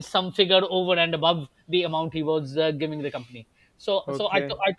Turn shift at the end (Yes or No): No